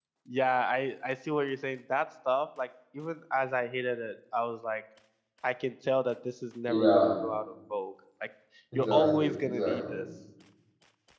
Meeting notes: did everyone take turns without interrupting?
No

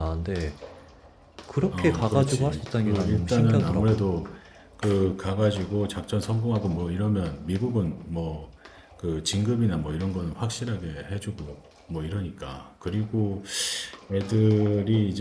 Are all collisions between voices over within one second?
No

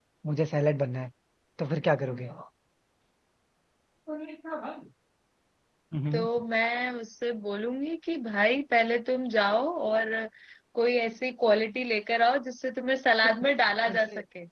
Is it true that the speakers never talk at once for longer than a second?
Yes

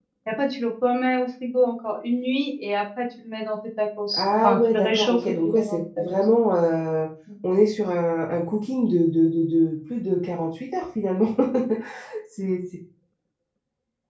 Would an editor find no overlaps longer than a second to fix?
No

